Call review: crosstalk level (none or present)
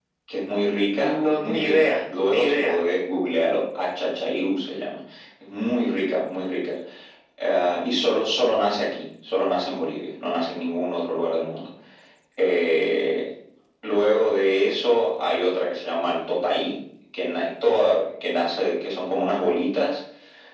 present